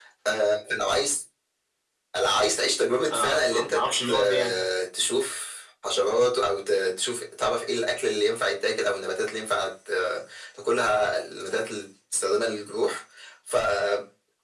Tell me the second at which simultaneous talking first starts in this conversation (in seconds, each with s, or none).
3.1 s